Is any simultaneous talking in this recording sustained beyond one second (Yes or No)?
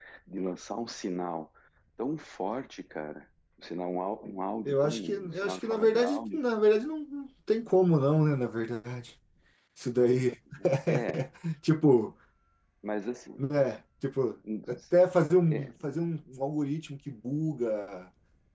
Yes